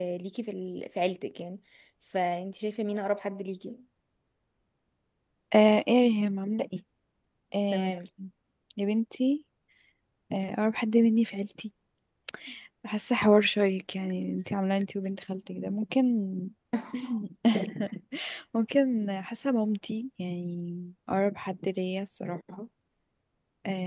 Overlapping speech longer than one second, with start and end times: none

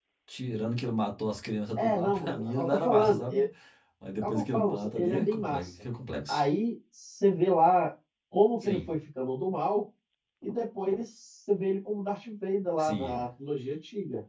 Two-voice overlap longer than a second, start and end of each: 1.8-3.5, 4.2-5.8

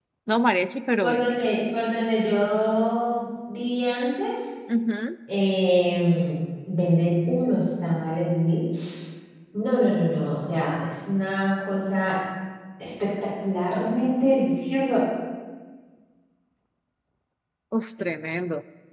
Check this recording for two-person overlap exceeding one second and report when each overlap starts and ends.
none

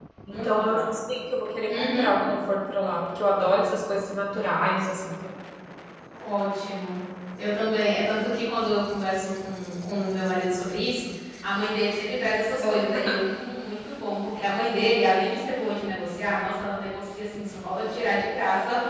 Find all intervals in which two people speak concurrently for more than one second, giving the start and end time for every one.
none

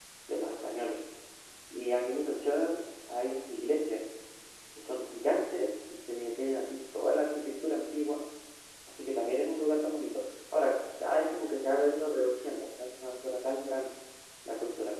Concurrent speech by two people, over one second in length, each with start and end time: none

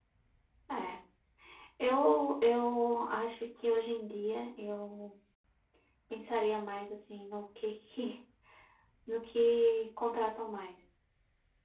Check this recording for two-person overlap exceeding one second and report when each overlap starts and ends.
none

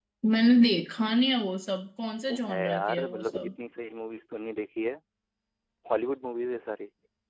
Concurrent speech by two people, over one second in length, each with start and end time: 2.3-3.5

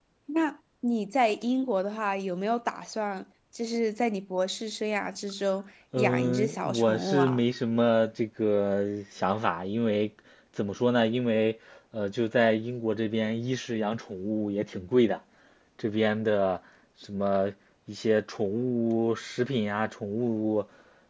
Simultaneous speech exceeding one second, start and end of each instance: 6.0-7.4

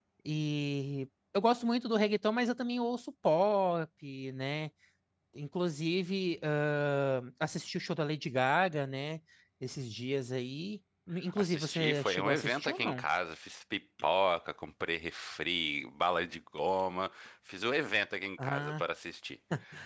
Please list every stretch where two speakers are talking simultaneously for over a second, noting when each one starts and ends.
11.3-13.0

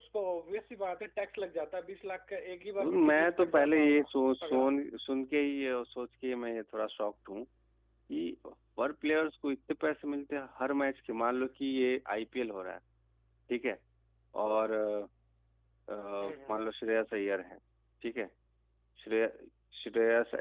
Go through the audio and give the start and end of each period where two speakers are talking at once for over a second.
2.8-4.0

